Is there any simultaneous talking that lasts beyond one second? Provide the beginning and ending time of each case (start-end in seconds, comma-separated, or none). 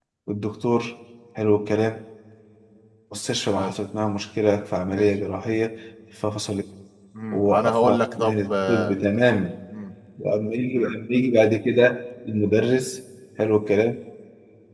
7.3-8.9